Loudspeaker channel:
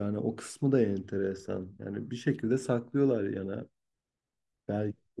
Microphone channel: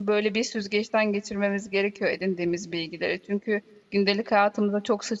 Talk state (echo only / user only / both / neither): user only